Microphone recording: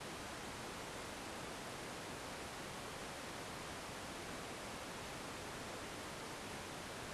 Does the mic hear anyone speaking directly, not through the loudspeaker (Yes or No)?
No